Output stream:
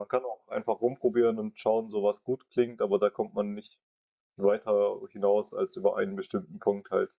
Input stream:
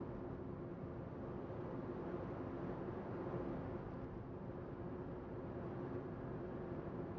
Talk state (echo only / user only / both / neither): neither